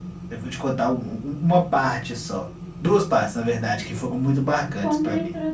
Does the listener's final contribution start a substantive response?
Yes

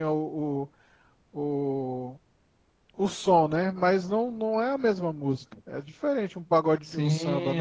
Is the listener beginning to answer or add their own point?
Yes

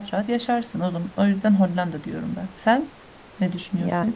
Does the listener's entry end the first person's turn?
Yes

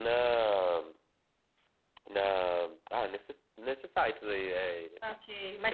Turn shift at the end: Yes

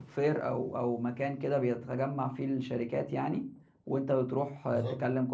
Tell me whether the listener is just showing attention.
Yes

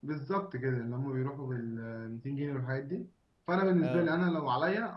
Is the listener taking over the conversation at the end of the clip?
No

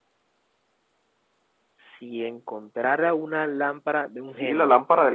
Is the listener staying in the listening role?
No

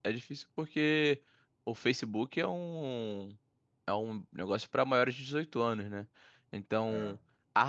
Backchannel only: Yes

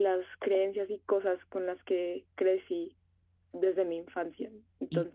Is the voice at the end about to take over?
Yes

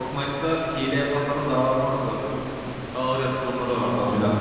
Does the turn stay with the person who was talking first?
Yes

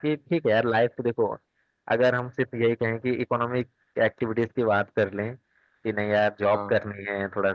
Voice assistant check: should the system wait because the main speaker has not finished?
Yes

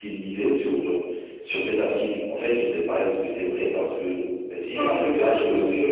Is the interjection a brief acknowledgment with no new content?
No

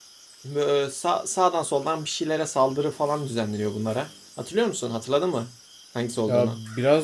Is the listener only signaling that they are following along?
No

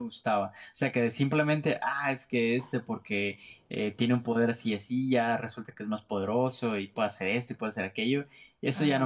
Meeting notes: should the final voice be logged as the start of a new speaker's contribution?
Yes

